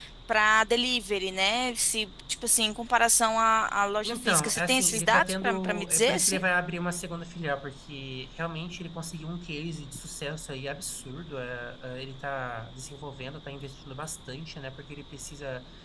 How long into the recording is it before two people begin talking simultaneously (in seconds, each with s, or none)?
4.0 s